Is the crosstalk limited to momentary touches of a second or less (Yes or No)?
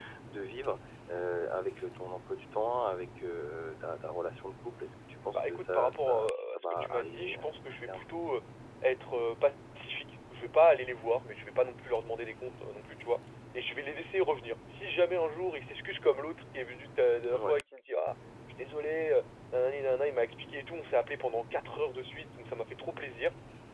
No